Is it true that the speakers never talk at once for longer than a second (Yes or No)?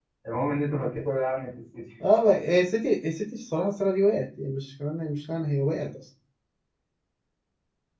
Yes